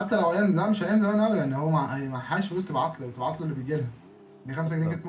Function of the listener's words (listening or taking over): listening